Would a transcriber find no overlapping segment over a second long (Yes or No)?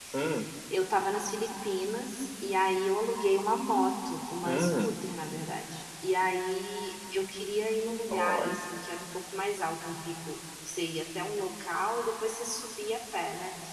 Yes